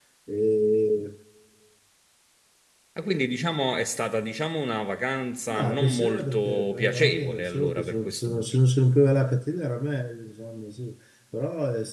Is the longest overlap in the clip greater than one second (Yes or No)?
Yes